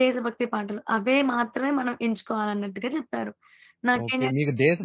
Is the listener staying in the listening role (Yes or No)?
No